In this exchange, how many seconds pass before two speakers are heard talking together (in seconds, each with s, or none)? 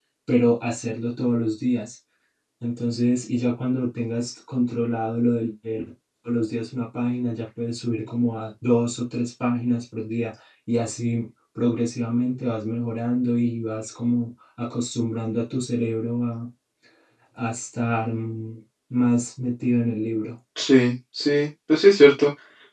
none